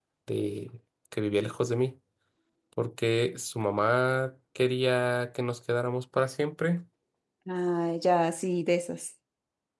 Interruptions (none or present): none